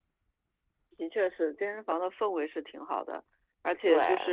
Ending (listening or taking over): listening